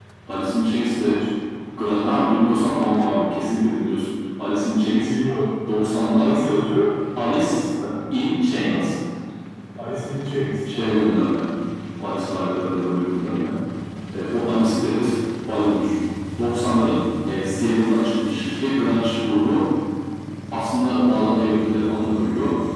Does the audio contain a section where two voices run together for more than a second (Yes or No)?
No